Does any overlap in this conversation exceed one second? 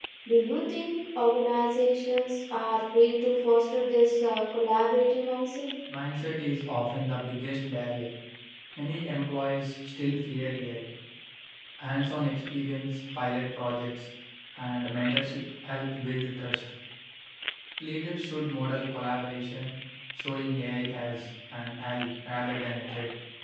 No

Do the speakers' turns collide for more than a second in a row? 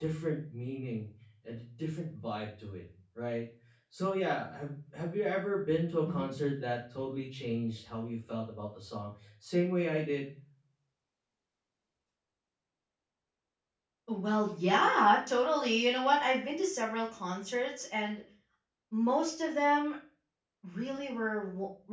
No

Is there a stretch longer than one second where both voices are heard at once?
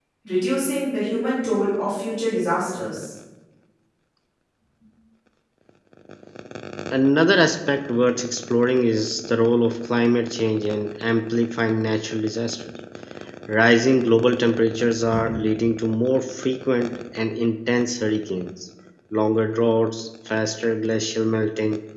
No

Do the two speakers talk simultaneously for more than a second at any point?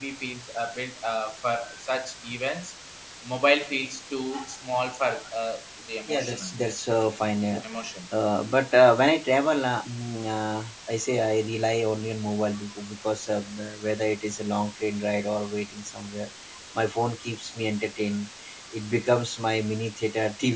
No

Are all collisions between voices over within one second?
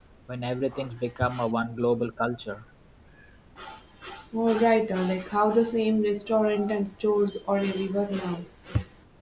Yes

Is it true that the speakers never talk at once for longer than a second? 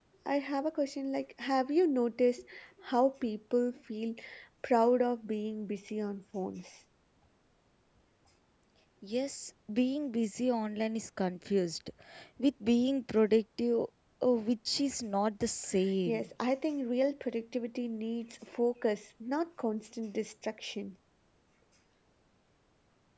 Yes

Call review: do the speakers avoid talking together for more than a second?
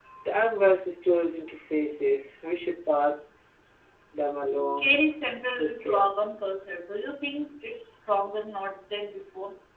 Yes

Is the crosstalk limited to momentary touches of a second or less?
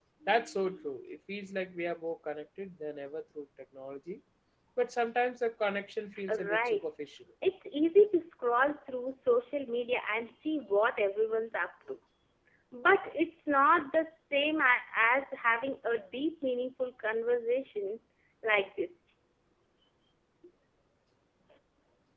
Yes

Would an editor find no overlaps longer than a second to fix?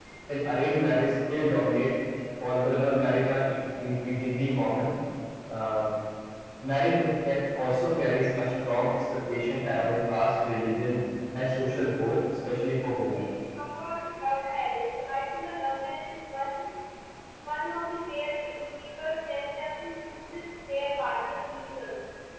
Yes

